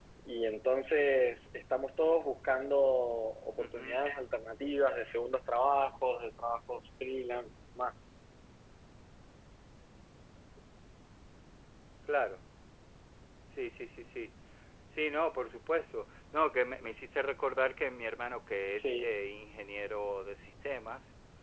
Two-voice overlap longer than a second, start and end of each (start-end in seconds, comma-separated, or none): none